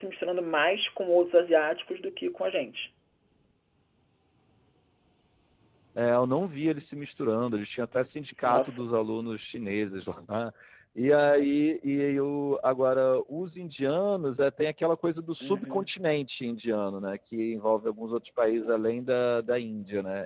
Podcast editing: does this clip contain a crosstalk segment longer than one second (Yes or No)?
No